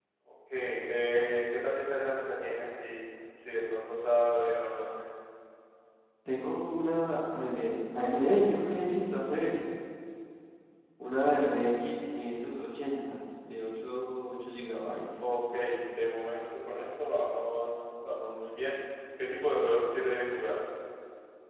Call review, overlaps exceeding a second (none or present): none